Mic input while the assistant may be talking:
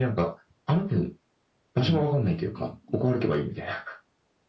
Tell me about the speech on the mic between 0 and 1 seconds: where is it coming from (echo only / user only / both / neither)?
echo only